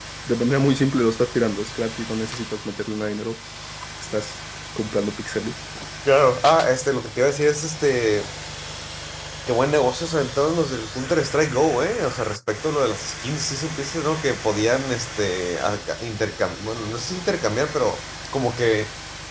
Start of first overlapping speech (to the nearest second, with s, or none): none